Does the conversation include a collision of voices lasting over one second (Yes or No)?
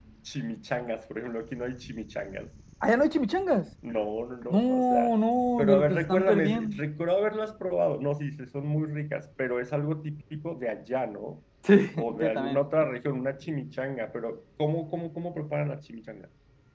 Yes